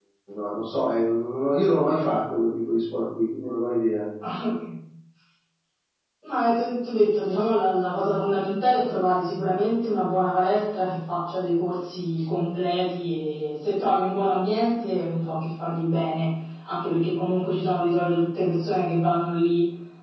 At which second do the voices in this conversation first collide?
none

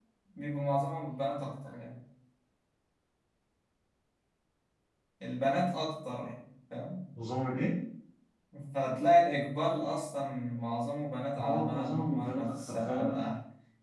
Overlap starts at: 11.4 s

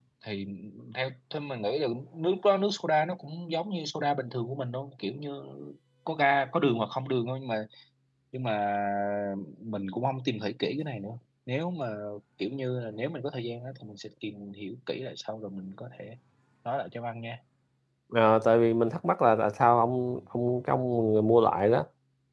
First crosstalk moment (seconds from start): none

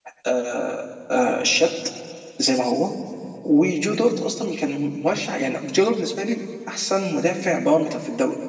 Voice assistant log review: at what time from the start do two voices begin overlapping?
none

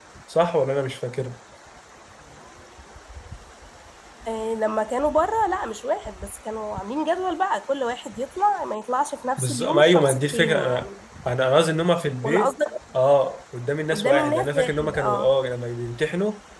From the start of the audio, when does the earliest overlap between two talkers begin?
9.4 s

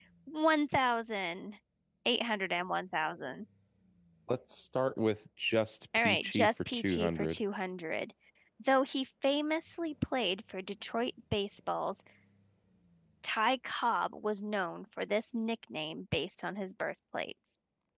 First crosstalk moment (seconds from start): 5.9 s

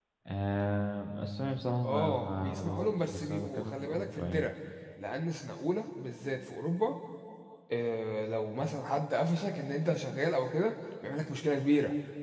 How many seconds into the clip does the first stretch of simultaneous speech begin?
1.8 s

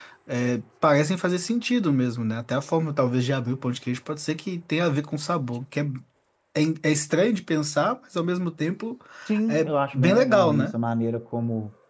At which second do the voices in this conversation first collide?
9.5 s

